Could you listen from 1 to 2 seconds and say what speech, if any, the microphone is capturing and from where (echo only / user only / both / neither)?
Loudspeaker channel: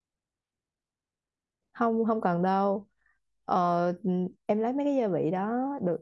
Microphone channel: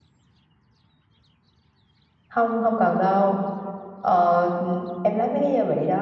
neither